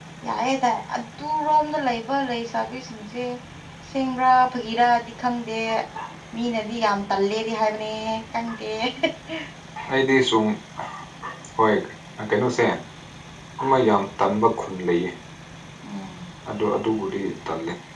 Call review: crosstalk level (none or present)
none